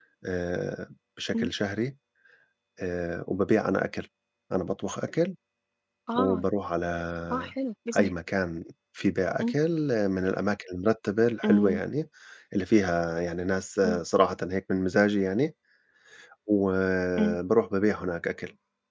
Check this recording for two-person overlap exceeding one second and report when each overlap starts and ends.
none

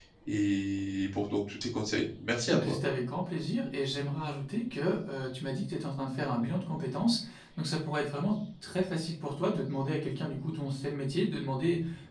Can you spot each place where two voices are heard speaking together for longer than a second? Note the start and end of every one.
none

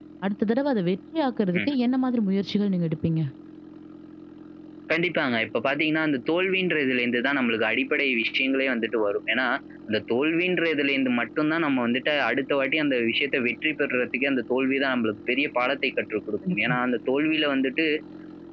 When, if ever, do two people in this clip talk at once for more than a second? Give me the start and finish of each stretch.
none

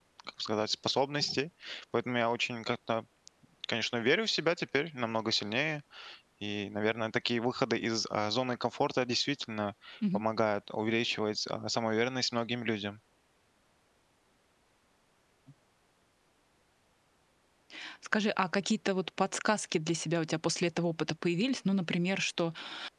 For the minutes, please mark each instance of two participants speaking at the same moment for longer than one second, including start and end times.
none

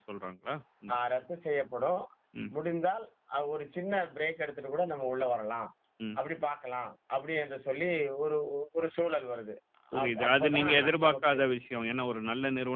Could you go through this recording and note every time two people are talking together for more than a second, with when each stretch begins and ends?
10.0-11.4

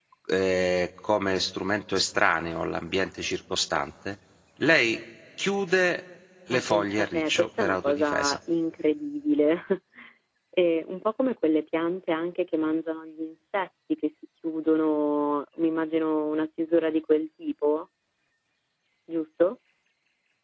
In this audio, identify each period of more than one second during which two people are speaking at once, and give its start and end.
6.5-8.4

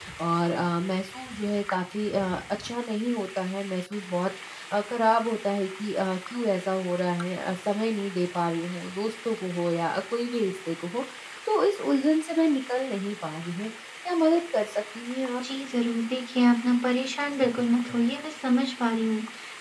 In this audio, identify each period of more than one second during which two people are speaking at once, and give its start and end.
none

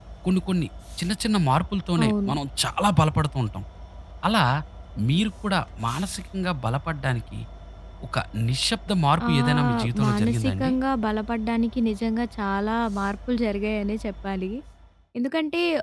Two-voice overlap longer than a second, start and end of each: 9.3-10.7

